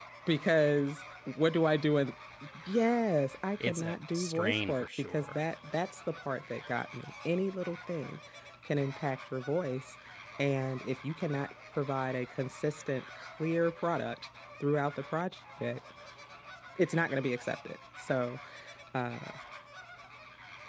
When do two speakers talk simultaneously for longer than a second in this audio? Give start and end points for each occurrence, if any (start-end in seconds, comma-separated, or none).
3.6-5.4